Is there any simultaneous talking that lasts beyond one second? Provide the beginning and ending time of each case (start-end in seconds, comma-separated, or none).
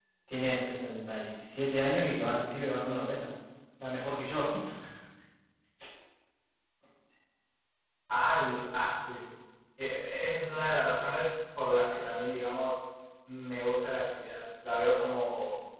none